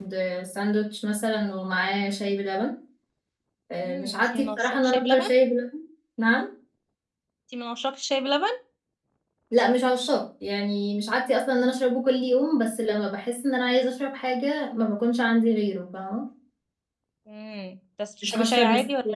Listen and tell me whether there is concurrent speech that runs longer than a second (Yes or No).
Yes